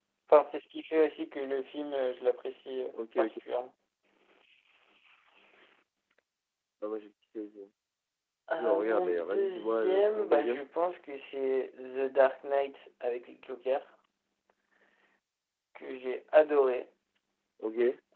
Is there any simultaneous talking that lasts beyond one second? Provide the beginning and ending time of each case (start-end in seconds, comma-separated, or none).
8.6-10.6